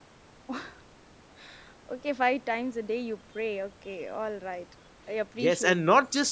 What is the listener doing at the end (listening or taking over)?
taking over